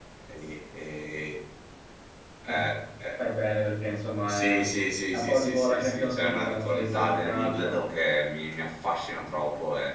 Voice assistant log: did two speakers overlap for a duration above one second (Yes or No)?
Yes